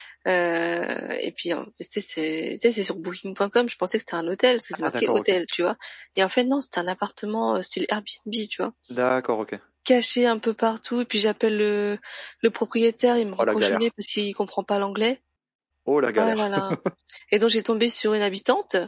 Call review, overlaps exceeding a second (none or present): none